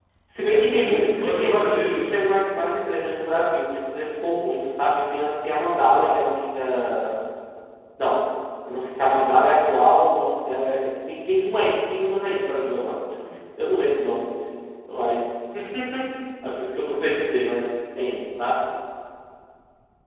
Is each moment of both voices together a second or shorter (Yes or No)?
No